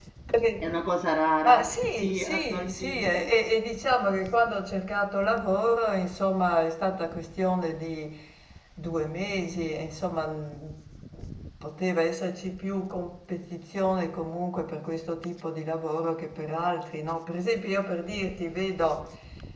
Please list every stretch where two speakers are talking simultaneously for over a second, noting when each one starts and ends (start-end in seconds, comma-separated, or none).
1.4-3.3